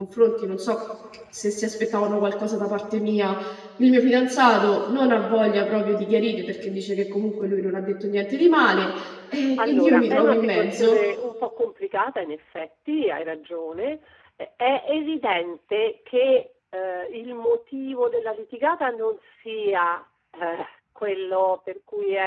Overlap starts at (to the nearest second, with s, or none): 10 s